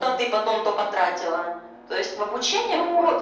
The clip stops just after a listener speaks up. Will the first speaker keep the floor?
No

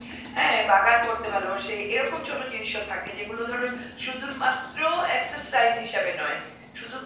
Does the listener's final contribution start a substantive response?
No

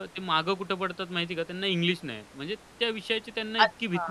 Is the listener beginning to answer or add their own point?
Yes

